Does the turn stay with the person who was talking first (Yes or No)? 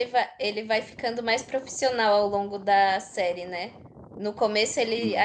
Yes